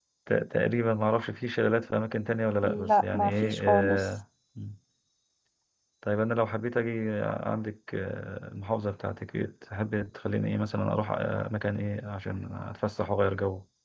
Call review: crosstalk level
present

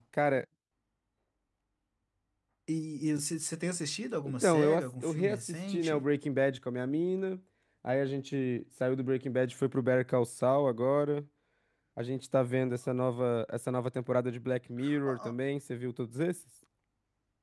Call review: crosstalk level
present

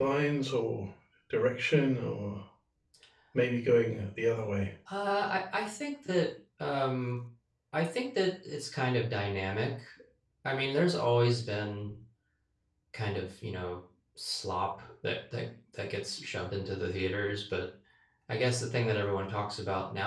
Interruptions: none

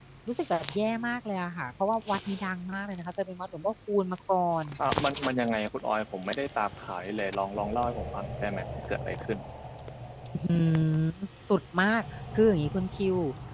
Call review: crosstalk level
none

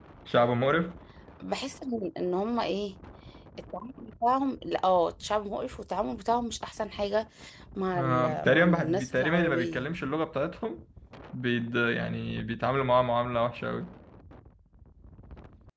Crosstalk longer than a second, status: present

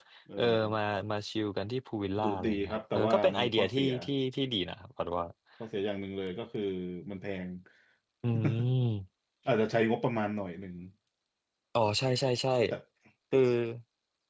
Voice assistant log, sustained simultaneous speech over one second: present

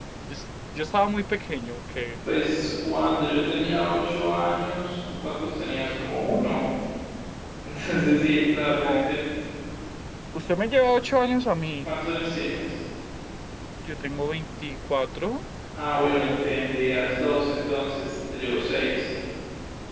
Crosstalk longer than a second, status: none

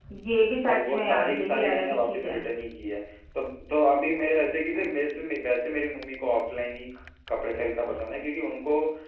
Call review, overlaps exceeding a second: present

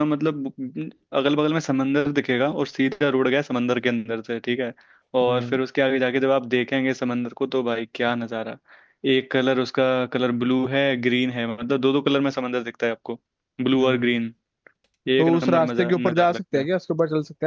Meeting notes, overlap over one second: present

